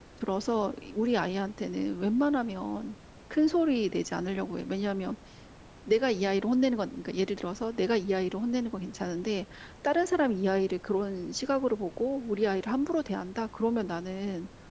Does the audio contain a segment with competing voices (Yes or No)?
No